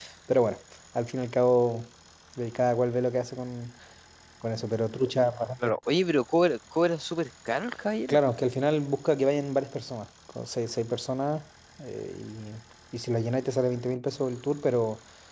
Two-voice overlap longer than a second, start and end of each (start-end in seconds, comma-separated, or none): none